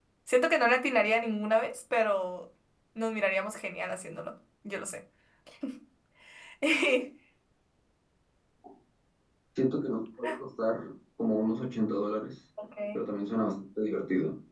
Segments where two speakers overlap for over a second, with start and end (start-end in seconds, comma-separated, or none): none